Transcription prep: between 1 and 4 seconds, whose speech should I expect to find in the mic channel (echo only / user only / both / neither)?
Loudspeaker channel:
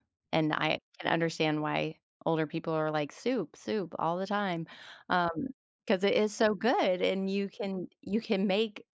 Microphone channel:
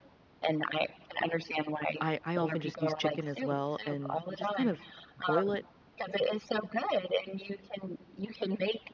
both